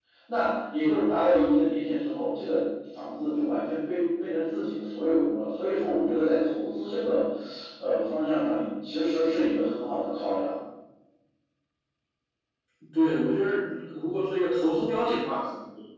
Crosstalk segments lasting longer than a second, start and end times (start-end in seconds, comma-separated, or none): none